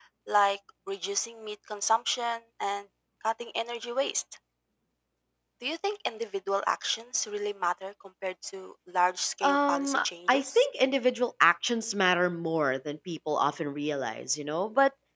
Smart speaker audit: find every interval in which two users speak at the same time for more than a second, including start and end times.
9.4-10.7

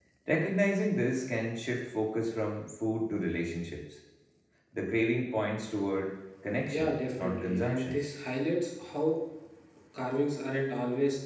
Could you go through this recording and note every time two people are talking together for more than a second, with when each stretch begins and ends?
6.7-8.0

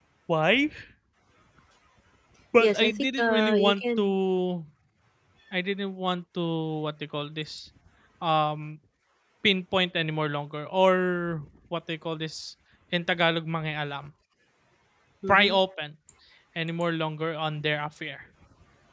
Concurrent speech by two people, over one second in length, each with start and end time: 2.6-4.1

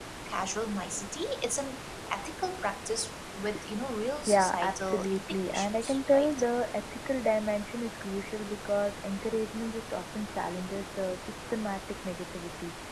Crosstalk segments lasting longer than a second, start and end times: 4.2-6.4

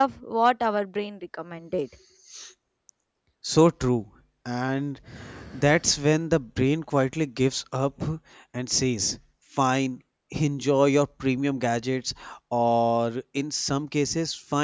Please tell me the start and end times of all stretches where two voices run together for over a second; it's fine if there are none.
none

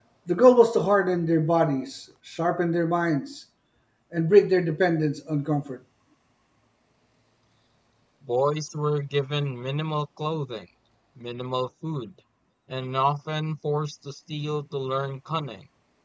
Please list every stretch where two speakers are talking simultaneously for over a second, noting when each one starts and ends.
none

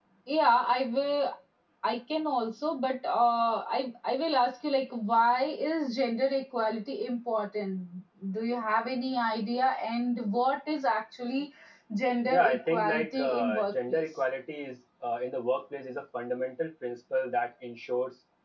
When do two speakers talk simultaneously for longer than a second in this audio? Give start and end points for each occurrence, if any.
12.3-14.0

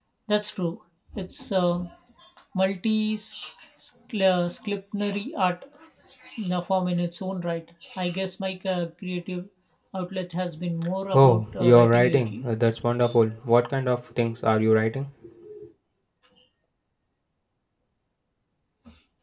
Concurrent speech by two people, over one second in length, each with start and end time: 11.1-12.4

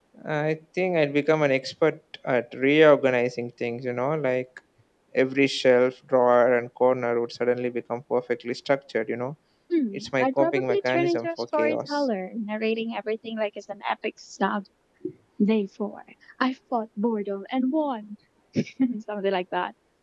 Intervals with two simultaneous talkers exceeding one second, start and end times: 9.9-12.0

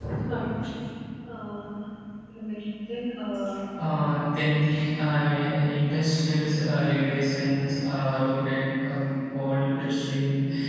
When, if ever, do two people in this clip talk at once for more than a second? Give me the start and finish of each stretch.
none

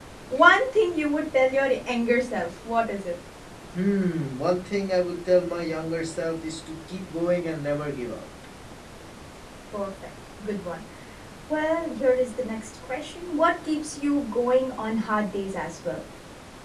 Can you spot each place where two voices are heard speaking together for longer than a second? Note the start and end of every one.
none

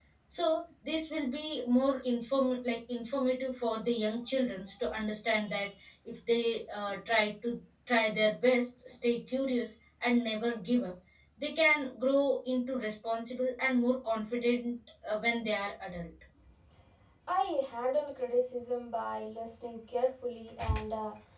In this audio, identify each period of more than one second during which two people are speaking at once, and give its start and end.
none

